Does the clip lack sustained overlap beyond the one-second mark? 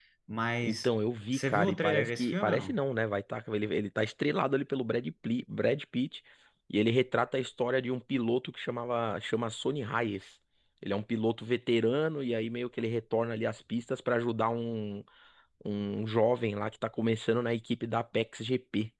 No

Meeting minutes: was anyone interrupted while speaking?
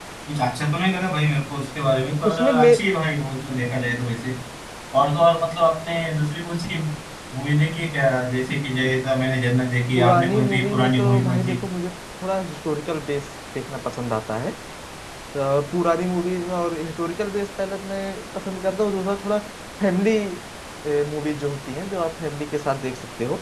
Yes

